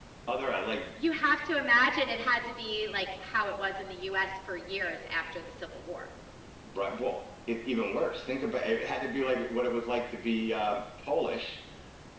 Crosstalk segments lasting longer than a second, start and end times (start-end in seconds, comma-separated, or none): none